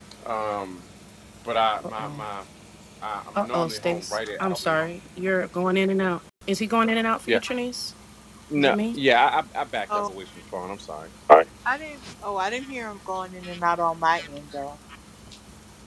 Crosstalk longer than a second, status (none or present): present